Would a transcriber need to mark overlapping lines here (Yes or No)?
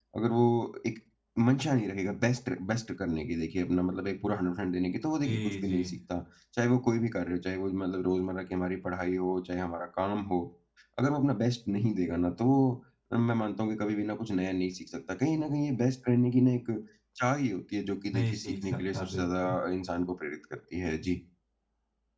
Yes